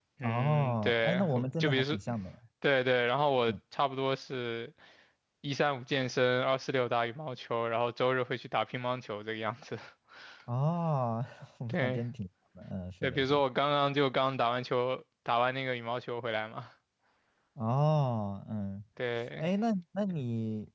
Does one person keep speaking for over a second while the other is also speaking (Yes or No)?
Yes